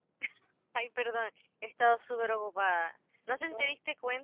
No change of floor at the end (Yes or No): Yes